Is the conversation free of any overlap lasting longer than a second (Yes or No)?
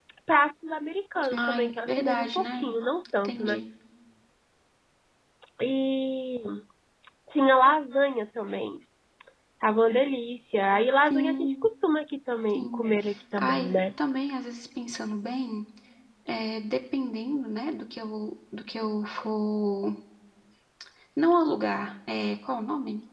No